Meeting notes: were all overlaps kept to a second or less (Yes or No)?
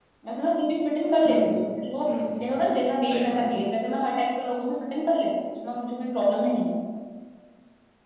No